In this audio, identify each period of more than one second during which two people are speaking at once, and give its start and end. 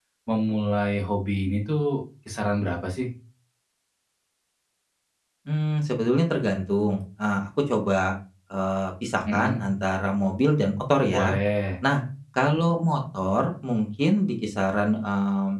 none

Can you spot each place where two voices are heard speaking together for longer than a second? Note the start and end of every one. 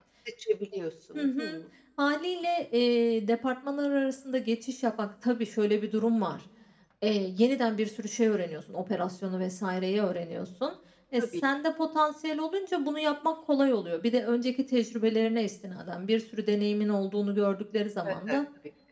none

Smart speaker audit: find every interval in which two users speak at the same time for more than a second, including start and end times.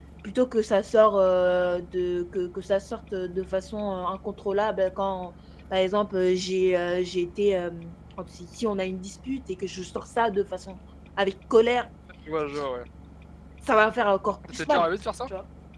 none

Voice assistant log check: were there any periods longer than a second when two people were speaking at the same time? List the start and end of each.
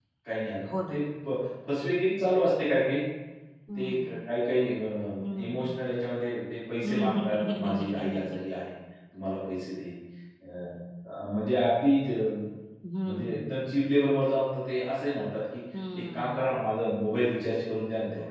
6.8-8.4

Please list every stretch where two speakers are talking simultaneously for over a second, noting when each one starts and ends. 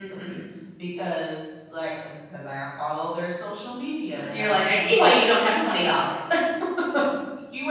4.1-5.9

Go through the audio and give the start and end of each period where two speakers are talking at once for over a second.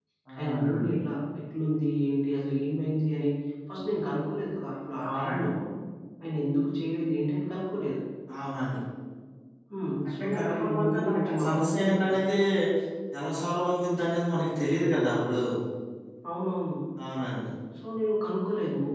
10.1-12.2

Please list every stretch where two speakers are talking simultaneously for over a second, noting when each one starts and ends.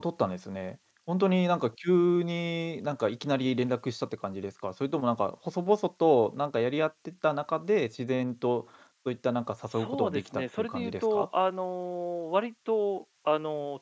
9.8-11.3

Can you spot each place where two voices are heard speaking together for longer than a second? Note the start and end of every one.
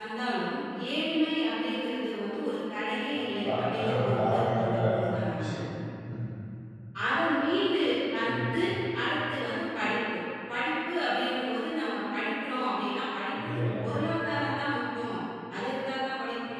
3.2-4.7

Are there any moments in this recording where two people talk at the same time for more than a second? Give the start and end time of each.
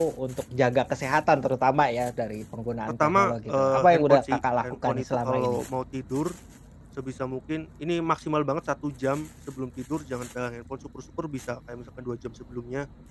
3.0-5.6

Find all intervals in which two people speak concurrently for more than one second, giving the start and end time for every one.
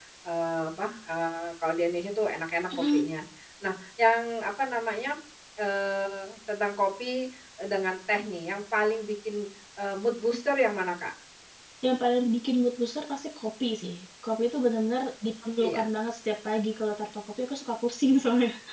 none

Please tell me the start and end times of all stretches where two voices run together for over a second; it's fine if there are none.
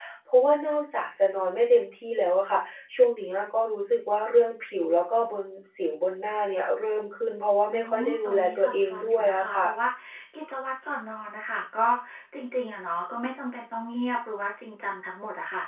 7.7-9.7

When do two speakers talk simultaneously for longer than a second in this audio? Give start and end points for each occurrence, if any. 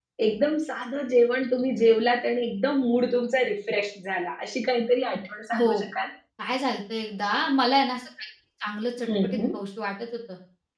none

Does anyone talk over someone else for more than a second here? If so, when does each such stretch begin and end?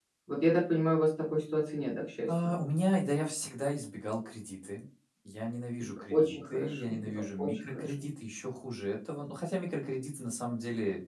5.8-7.9

